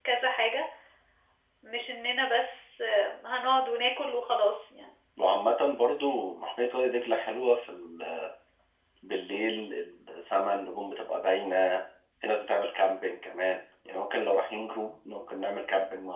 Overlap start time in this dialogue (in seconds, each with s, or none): none